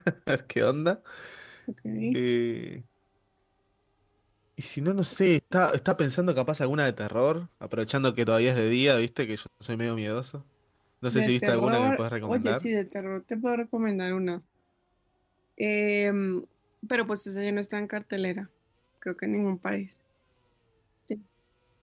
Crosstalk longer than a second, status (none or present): present